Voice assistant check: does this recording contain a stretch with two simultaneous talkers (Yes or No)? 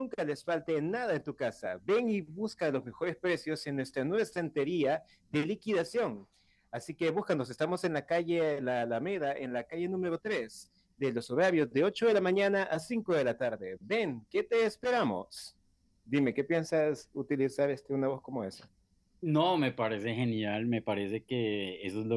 No